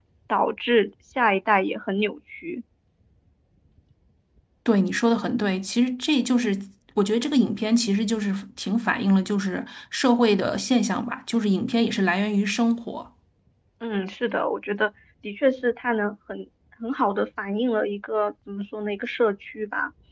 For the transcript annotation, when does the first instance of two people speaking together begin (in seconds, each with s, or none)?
none